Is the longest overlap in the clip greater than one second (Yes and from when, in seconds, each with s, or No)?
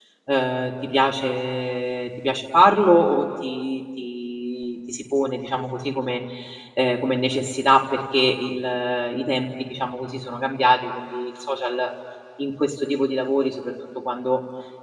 No